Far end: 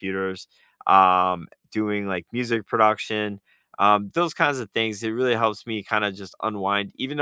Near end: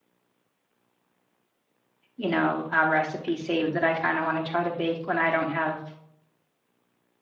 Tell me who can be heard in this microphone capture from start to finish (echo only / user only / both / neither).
user only